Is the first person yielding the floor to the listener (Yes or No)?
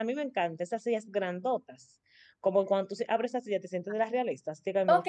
Yes